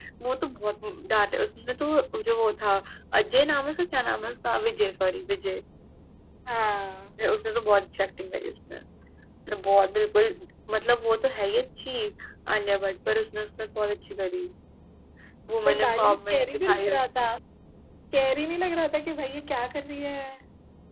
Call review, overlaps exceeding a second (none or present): present